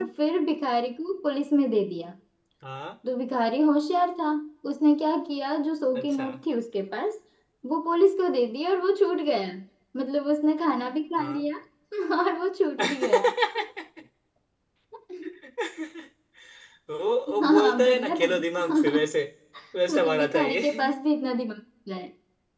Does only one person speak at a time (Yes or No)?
No